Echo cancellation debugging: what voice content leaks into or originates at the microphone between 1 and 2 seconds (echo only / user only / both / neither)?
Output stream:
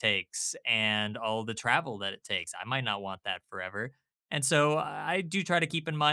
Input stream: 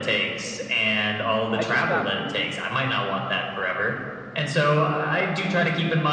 both